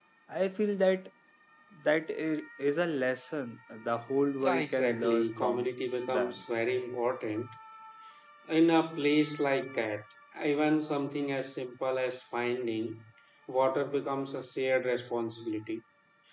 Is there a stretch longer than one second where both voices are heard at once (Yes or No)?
Yes